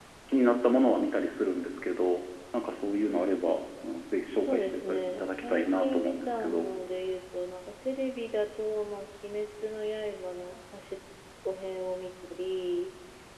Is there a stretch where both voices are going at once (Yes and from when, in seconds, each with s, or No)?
Yes, from 4.3 s